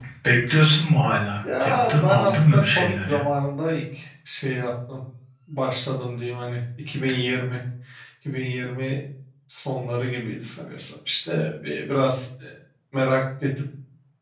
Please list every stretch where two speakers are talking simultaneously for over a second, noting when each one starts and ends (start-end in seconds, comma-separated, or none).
1.6-3.2